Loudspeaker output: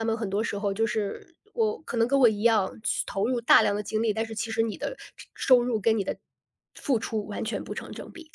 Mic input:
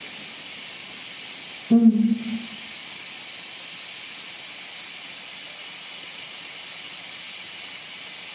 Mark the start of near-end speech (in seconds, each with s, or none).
1.7 s